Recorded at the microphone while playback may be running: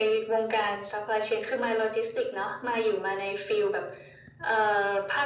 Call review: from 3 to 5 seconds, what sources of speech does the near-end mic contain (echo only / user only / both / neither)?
echo only